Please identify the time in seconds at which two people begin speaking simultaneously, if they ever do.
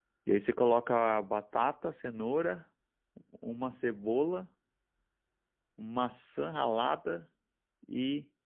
none

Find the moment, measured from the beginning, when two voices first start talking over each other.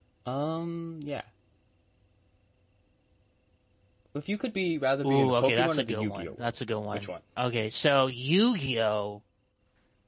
5.0 s

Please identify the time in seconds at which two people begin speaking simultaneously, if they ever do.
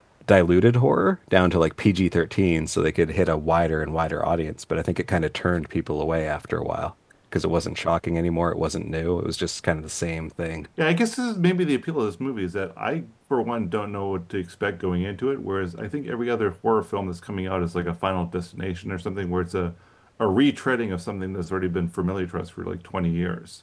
none

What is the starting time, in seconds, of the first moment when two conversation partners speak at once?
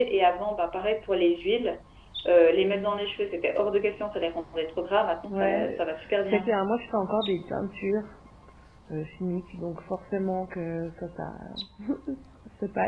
5.3 s

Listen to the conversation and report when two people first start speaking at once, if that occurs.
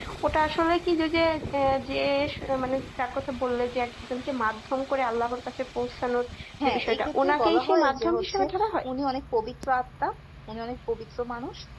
6.6 s

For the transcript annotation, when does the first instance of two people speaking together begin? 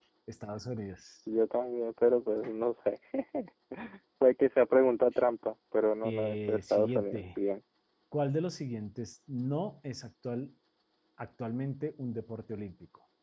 6.0 s

